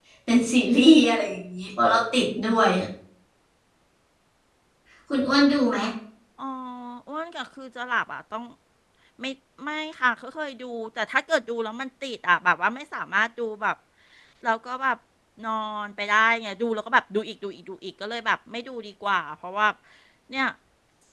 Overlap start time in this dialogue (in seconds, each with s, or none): none